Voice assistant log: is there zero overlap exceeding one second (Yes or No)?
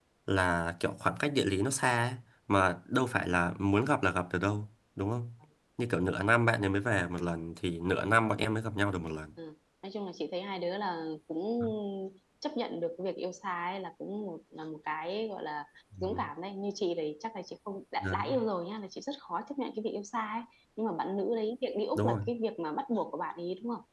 Yes